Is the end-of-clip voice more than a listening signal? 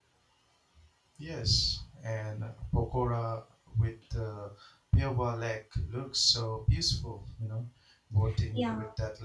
No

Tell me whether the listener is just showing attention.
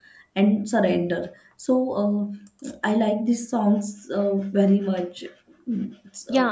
No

